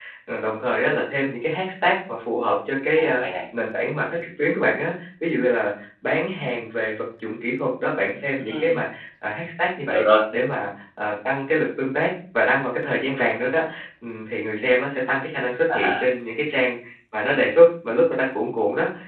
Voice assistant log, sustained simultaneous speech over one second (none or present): none